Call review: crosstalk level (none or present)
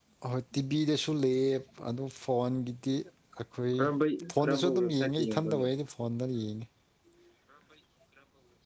present